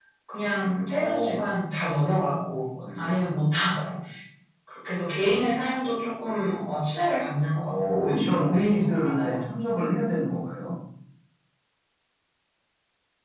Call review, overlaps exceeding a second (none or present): present